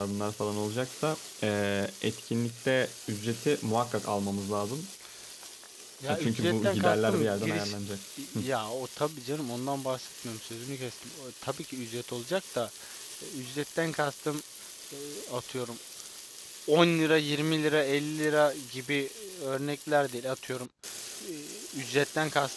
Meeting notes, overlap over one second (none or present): present